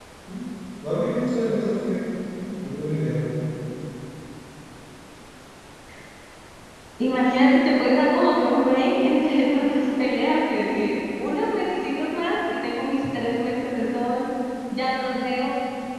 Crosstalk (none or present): none